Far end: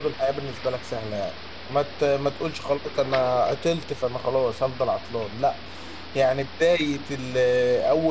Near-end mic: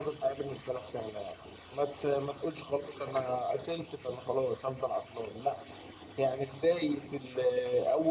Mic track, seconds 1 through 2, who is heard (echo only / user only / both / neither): echo only